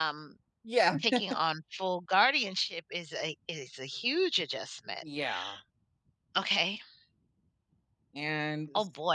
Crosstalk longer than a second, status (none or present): none